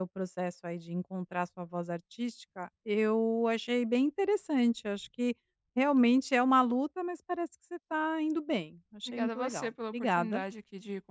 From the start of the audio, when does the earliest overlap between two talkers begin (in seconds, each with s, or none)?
9.1 s